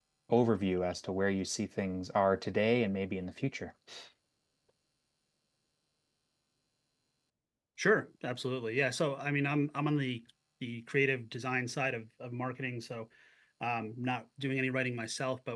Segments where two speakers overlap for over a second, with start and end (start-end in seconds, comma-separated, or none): none